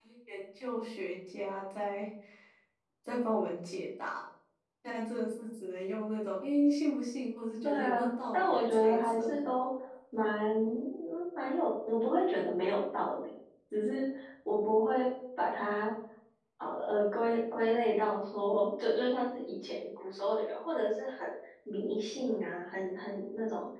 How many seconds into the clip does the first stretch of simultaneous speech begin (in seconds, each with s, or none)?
7.6 s